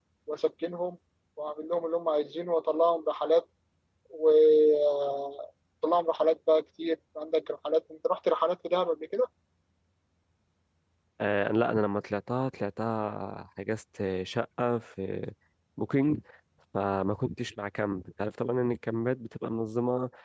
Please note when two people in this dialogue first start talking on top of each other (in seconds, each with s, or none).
none